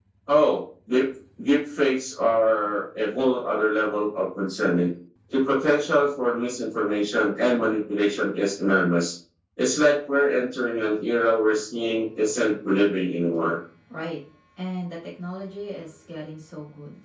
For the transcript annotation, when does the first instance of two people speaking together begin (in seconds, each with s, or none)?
none